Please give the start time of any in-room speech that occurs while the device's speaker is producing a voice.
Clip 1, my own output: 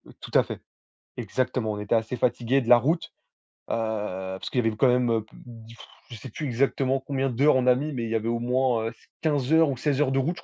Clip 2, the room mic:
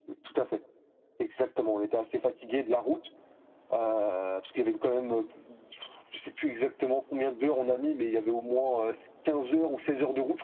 none

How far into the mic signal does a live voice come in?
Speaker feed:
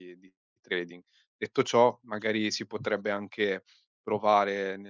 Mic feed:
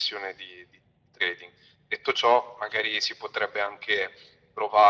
none

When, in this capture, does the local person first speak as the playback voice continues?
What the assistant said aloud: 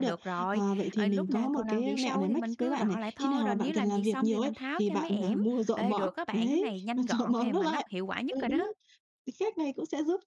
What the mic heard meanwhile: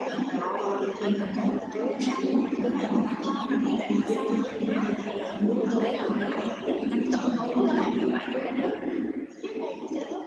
5.6 s

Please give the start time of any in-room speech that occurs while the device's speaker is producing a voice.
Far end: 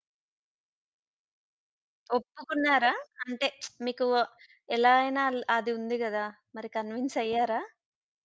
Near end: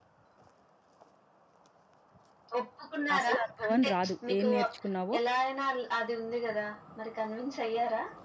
3.2 s

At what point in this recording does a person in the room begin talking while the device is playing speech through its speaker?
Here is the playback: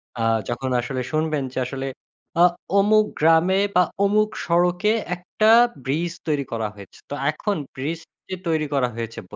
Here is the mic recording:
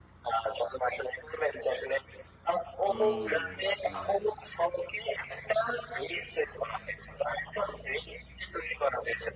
2.9 s

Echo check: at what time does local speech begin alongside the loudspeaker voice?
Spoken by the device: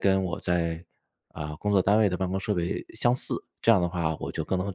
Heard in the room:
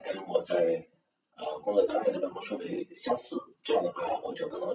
none

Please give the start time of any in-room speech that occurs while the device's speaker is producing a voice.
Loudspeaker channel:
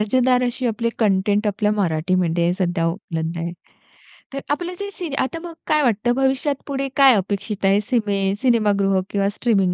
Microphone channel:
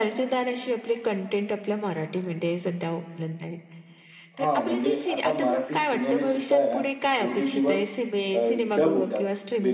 4.4 s

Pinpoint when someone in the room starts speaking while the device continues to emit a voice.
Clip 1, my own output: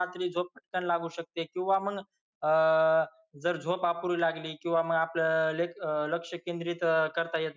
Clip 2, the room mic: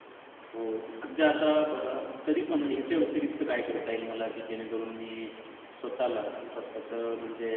0.5 s

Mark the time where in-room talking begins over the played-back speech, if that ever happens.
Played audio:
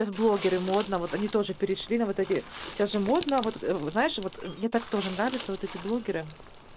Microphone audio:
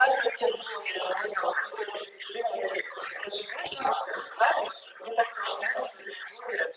none

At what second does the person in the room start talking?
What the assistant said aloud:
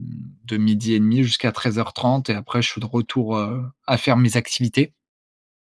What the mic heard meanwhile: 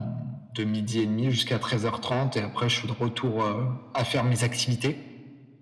none

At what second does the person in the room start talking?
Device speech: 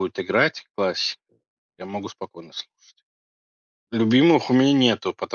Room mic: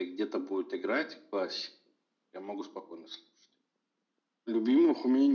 none

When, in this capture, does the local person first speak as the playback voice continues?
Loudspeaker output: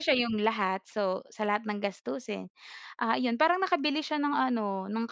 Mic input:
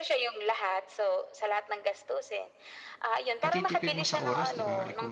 3.4 s

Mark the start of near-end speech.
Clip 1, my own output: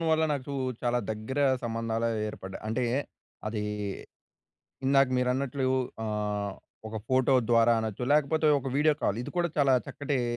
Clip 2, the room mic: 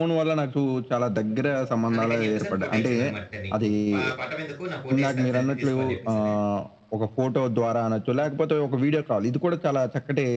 1.9 s

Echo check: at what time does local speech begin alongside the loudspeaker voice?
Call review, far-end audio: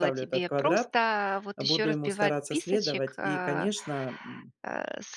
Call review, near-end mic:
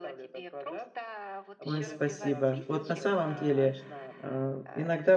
1.6 s

